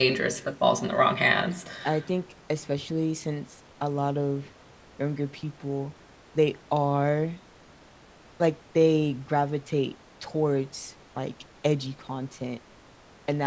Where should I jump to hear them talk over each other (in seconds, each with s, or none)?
none